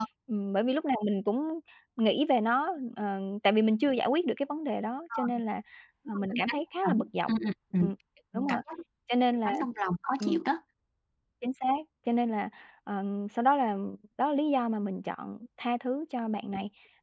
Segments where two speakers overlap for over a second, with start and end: 6.1-7.3

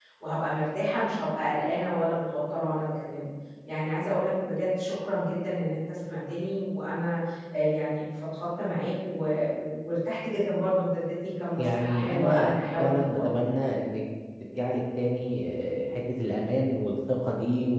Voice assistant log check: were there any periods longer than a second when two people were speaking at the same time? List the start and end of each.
11.6-13.2

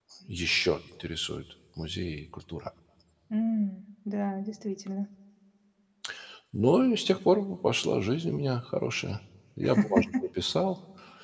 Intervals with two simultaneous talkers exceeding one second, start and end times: none

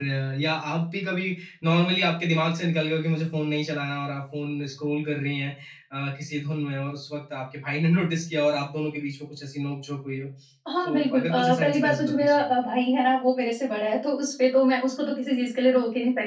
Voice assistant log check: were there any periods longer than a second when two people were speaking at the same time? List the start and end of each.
10.8-12.4

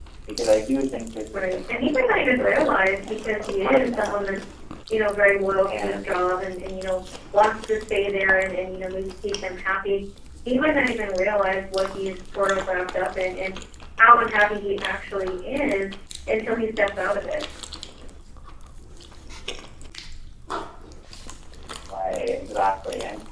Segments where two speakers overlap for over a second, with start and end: 1.3-4.2

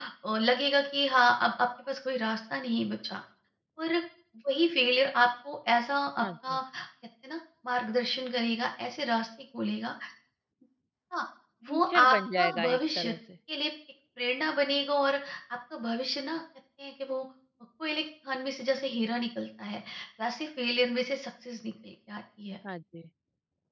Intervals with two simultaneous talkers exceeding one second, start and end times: 11.7-13.1

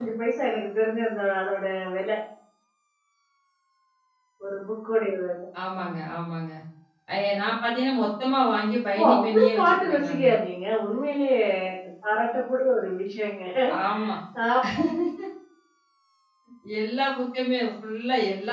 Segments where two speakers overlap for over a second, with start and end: 9.0-10.3

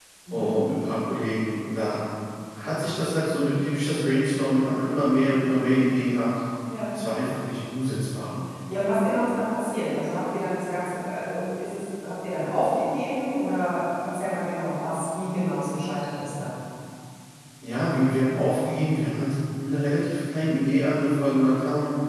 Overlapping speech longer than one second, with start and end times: none

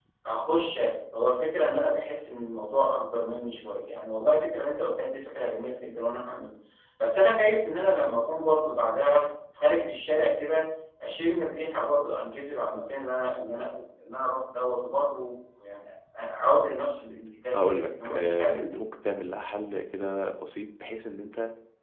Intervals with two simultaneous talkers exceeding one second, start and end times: 17.6-18.8

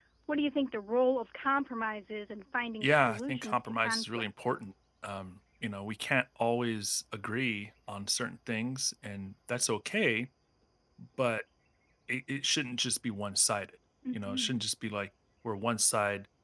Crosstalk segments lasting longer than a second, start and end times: 2.8-4.2

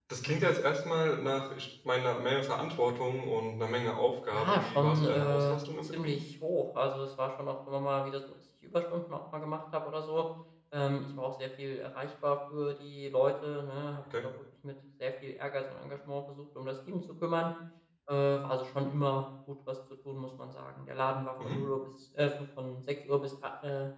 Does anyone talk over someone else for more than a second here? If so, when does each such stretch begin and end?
4.3-6.1

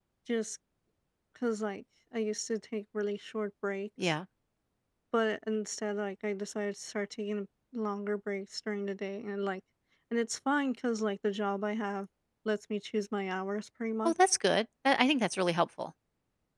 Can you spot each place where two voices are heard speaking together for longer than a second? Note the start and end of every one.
none

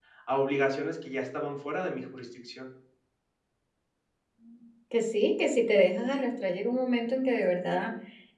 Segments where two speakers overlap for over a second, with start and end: none

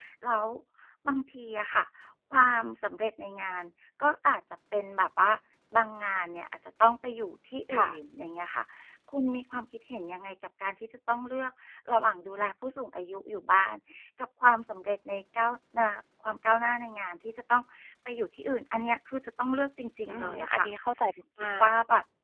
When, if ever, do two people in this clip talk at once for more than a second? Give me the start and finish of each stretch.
none

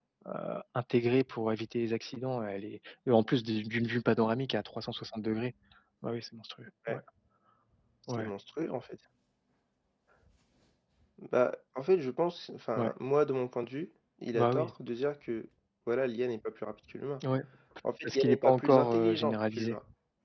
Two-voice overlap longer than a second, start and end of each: 18.0-19.7

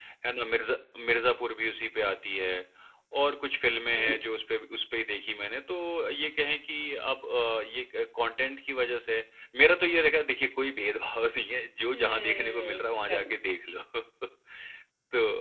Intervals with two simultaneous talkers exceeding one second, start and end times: 11.9-13.4

